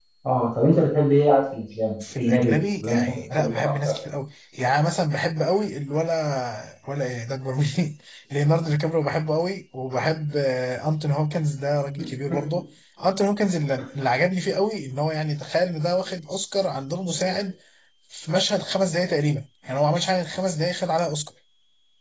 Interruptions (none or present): present